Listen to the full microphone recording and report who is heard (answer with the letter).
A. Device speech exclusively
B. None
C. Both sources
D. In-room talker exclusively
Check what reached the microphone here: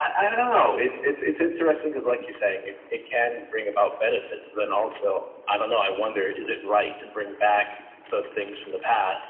A